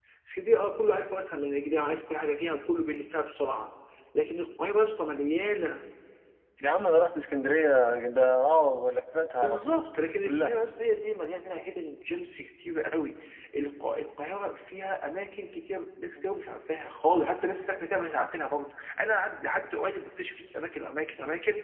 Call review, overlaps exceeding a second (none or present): none